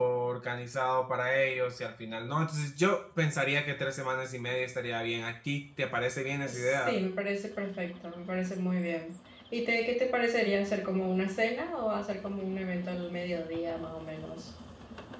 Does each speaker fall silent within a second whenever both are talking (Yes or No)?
Yes